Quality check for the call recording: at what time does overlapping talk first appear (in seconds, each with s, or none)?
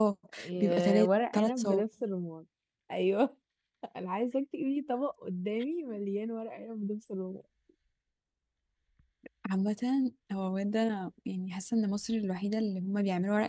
0.6 s